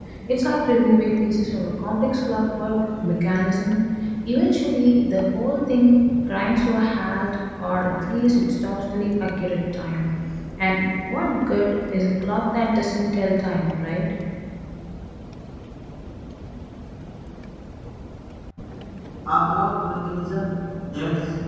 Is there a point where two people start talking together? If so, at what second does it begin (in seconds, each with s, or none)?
none